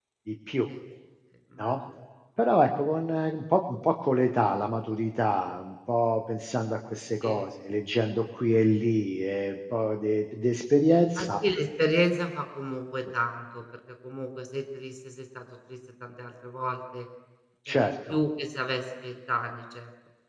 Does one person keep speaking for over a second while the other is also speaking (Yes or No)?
No